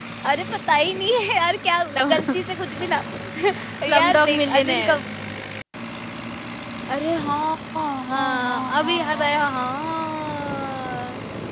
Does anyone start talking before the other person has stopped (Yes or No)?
Yes